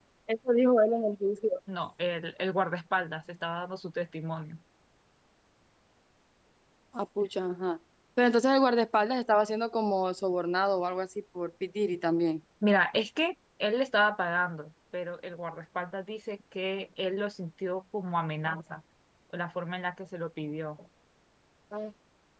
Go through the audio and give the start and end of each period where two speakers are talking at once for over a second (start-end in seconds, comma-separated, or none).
none